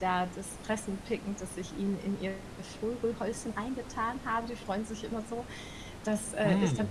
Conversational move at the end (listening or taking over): listening